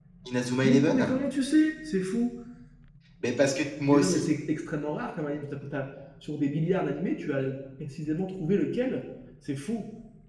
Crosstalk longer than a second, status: none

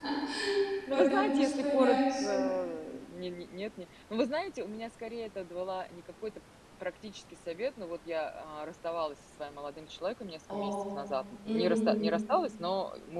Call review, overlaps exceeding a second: present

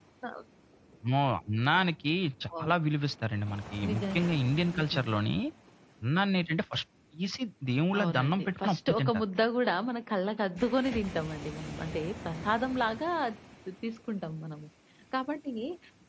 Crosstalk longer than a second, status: present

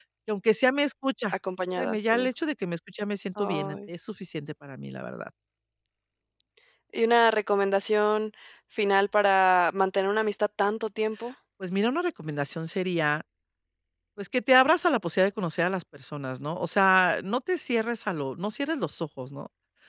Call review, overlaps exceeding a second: none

